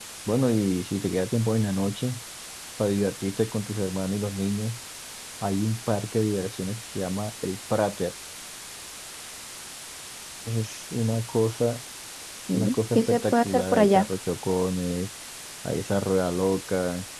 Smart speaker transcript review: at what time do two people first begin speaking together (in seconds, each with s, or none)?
12.6 s